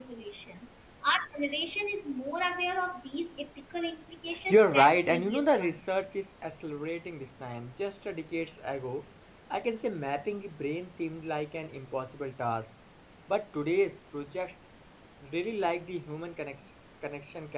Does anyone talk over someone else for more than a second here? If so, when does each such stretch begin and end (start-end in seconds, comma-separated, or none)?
4.5-5.8